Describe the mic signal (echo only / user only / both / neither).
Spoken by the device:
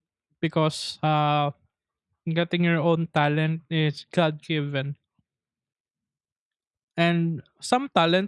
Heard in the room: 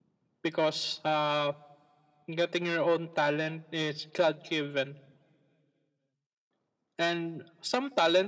echo only